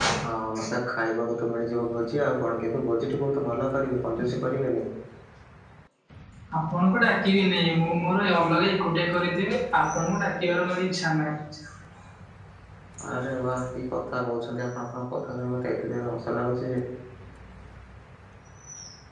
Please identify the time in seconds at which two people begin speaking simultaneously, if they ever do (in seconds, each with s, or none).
none